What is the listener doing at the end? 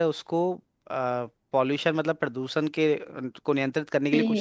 taking over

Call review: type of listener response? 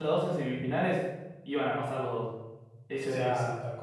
taking over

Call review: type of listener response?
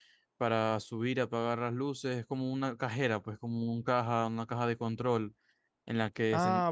taking over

